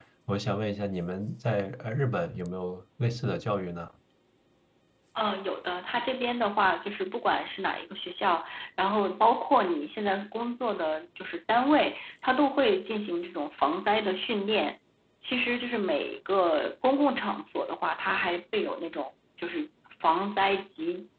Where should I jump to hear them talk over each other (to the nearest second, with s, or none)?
none